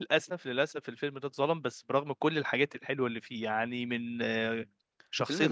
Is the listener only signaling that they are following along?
Yes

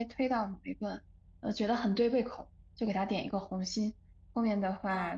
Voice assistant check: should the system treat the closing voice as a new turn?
No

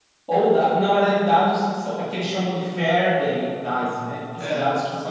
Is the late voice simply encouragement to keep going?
Yes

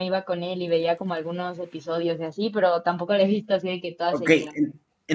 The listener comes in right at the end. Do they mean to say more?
Yes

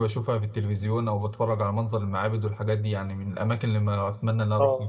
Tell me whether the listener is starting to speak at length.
Yes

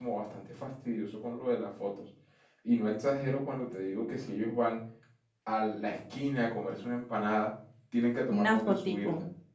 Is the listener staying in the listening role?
Yes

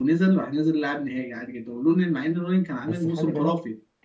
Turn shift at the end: Yes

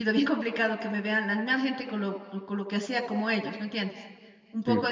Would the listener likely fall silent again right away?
Yes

